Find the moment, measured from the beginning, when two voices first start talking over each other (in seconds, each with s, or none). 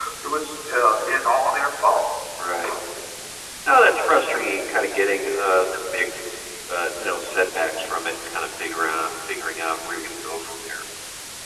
none